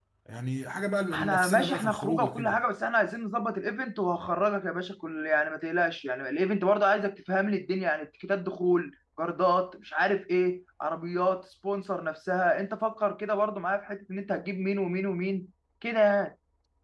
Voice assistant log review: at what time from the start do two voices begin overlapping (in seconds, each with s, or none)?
1.1 s